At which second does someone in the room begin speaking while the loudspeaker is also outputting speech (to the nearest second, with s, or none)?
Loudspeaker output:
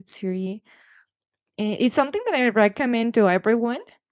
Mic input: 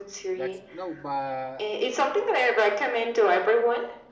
0 s